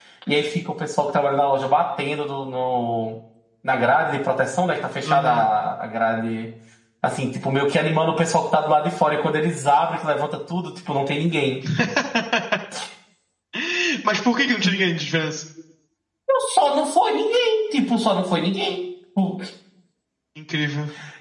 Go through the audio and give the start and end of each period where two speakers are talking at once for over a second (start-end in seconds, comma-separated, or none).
none